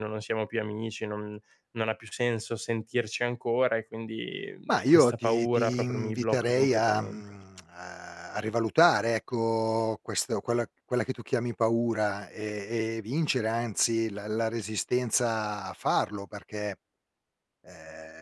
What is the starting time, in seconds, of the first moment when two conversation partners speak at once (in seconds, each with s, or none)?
4.7 s